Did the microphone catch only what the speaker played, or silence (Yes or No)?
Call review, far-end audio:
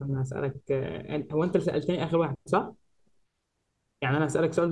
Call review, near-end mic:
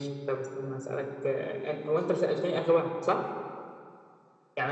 Yes